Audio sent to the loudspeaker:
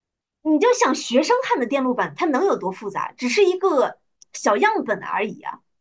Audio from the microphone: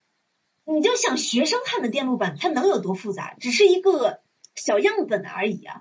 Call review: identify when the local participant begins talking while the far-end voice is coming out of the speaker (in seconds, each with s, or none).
none